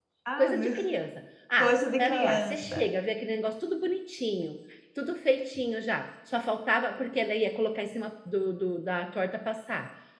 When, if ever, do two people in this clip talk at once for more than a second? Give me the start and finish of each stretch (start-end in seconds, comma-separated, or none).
1.6-2.9